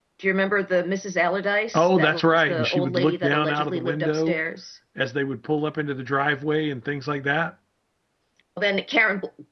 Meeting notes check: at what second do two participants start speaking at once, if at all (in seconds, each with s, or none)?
1.7 s